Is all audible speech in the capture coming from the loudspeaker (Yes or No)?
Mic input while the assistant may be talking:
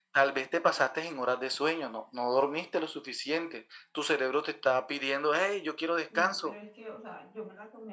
No